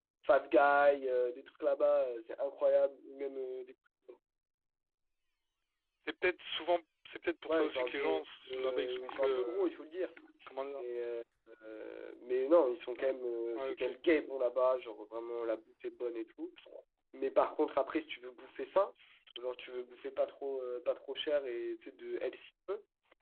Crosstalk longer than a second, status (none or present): present